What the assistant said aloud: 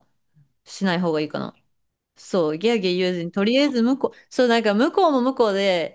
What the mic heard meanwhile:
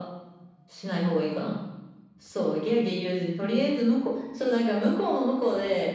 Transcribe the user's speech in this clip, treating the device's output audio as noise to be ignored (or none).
none